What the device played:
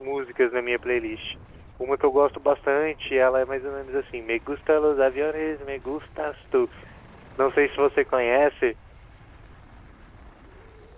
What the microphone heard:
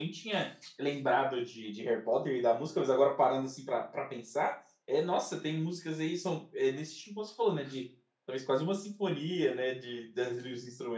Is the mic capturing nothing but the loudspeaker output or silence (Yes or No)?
No